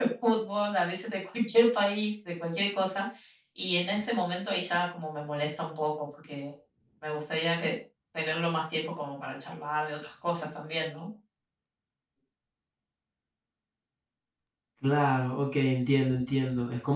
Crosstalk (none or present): none